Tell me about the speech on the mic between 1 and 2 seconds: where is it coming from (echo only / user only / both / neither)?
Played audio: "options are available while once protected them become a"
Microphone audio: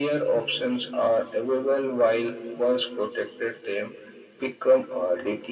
echo only